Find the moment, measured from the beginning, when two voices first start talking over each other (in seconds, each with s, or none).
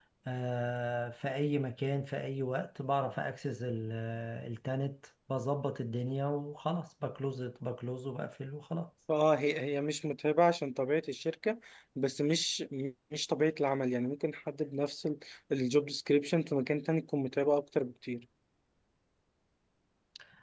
none